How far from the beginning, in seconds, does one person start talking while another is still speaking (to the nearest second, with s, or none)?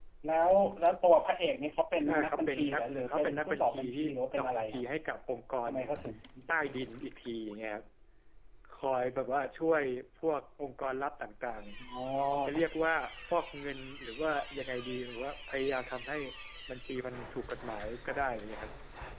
2 s